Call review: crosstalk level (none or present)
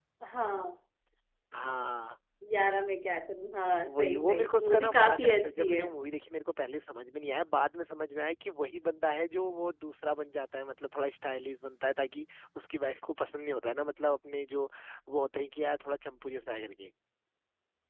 present